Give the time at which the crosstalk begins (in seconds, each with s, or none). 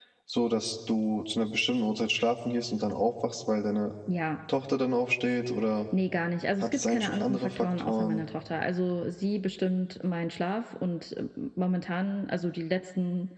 6.6 s